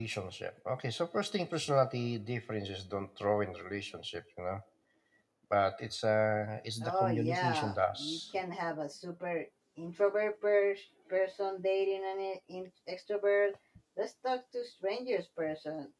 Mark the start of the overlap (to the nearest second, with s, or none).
7 s